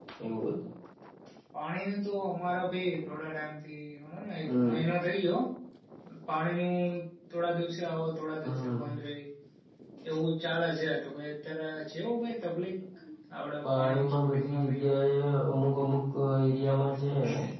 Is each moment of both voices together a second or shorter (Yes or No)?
No